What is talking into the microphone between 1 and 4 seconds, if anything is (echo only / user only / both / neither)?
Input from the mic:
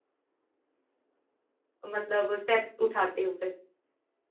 user only